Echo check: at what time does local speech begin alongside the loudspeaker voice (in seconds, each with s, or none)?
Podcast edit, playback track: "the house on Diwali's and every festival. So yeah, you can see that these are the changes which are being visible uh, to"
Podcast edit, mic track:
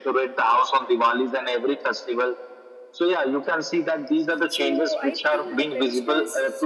4.4 s